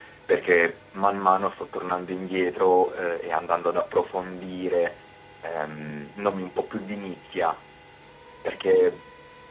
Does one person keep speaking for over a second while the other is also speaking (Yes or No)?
No